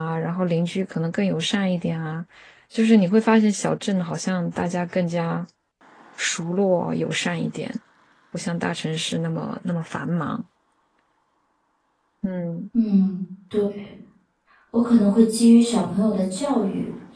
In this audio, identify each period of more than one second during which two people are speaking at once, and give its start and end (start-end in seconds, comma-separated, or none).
none